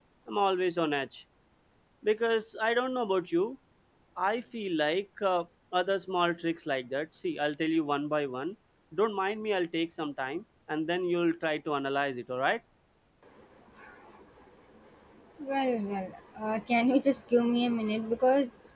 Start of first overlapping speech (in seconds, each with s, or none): none